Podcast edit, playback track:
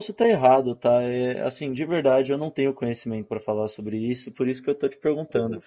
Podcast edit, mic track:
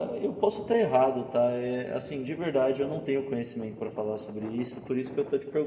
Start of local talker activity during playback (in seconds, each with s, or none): none